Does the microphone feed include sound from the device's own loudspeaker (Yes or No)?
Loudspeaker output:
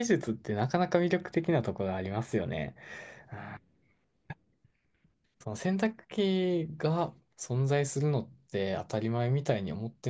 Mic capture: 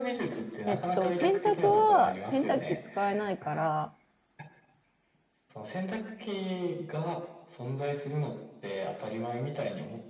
Yes